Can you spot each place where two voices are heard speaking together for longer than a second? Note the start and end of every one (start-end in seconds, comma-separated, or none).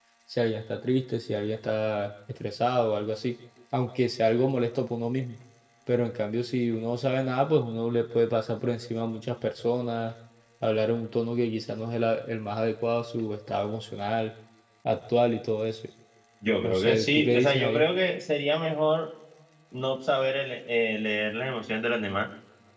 16.6-17.8